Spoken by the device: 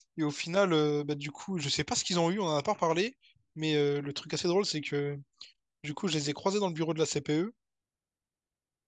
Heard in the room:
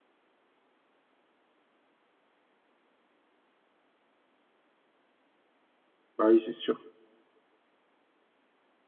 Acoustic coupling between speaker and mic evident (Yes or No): No